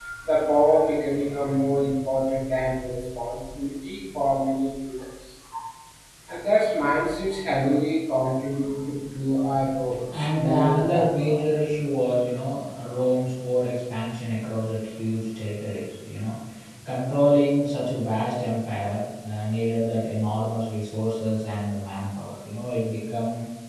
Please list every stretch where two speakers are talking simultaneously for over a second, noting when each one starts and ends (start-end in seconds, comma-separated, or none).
10.1-11.4